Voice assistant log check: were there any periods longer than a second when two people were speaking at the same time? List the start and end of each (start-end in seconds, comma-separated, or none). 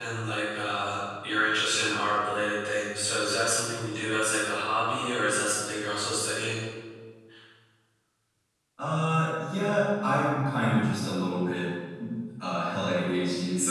none